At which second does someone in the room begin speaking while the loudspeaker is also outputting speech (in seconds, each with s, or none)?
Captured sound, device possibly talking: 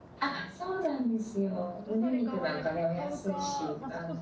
1.8 s